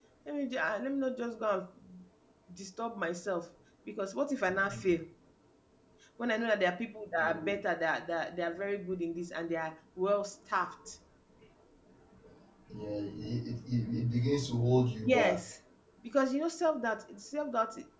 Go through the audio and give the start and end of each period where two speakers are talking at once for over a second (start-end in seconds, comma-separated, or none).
none